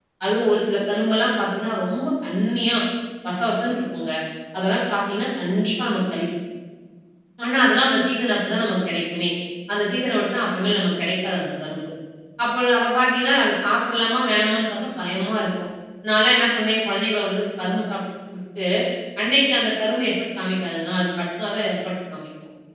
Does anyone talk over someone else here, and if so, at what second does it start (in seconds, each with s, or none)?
none